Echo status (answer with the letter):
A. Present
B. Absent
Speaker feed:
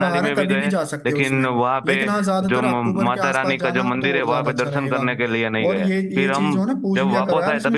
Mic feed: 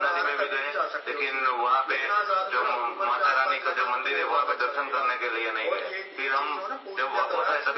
A